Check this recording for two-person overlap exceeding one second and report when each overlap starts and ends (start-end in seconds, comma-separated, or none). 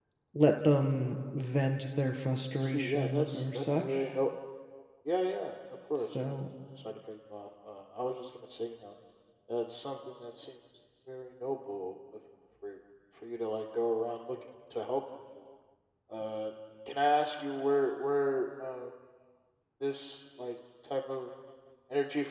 2.5-4.2